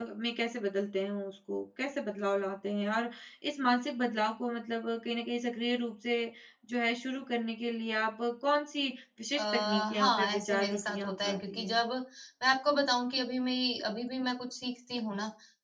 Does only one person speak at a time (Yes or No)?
No